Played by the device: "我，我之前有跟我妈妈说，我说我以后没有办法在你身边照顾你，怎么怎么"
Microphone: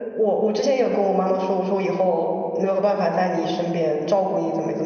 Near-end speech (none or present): none